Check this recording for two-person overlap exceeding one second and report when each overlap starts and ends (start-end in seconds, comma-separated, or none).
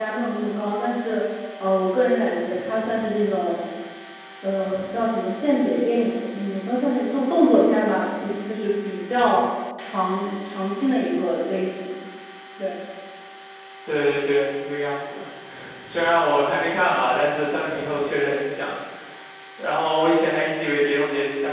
none